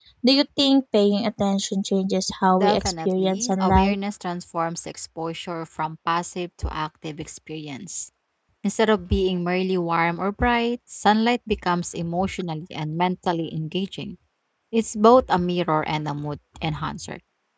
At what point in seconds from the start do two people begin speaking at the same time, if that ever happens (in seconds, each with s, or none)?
2.5 s